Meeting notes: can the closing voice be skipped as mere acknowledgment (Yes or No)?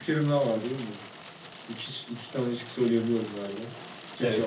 No